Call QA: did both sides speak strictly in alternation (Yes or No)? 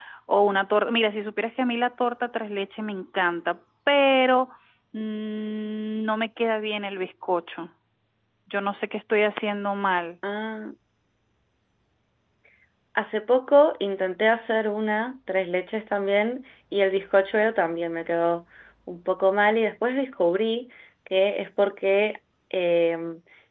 Yes